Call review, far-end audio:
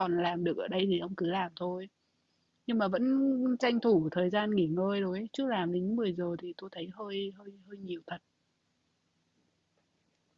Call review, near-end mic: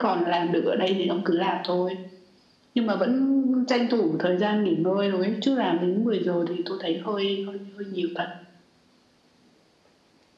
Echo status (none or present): present